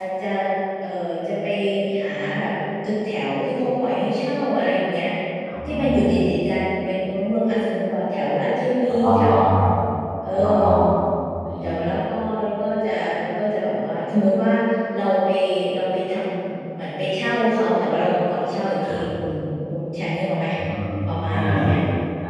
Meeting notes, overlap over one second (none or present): none